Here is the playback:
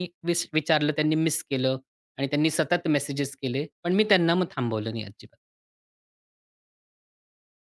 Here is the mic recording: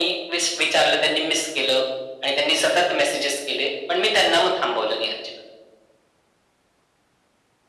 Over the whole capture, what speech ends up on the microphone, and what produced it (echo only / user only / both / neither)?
echo only